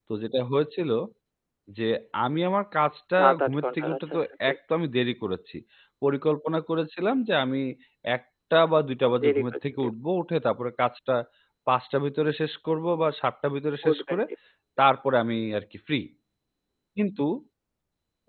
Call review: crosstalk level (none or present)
present